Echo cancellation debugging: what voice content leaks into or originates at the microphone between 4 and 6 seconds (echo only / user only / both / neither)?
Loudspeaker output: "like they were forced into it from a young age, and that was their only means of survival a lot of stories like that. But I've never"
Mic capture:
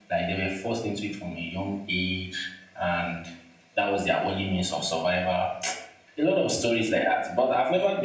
echo only